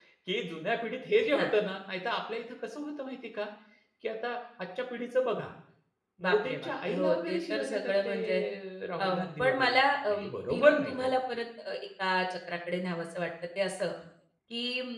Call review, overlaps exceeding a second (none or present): present